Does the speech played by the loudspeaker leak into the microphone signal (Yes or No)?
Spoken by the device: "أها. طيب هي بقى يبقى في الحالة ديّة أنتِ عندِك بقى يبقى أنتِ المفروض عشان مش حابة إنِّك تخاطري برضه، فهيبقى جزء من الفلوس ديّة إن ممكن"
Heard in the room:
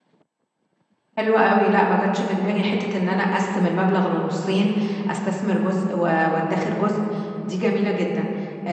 No